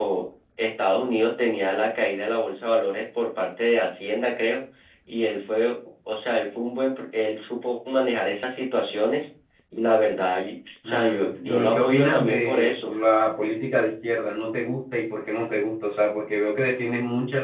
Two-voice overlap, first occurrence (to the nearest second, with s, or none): 11 s